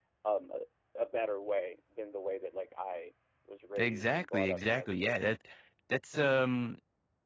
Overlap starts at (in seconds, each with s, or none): 3.8 s